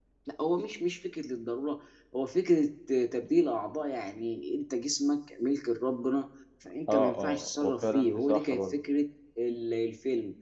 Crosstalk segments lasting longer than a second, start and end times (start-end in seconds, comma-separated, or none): 6.9-8.8